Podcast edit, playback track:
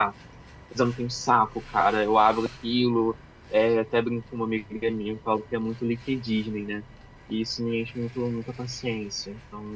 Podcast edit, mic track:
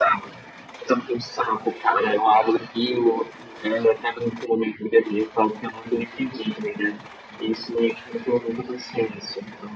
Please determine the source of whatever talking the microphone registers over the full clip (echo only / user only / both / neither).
echo only